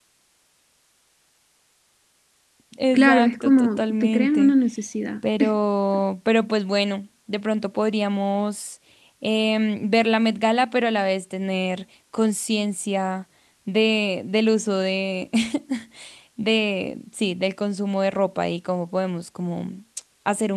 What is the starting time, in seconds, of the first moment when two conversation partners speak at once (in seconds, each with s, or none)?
2.9 s